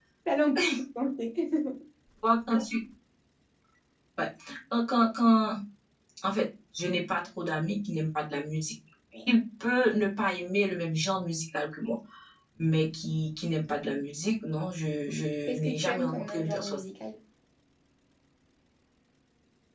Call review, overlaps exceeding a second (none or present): present